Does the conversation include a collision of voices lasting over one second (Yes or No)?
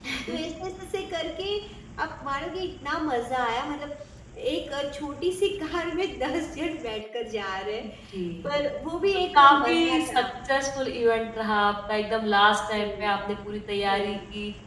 Yes